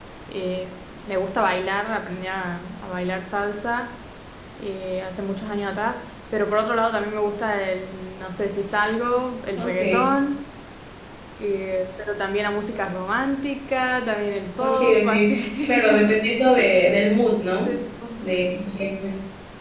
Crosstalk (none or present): present